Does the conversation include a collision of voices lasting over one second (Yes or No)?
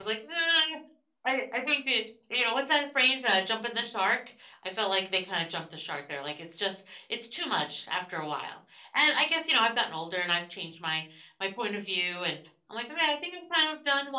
No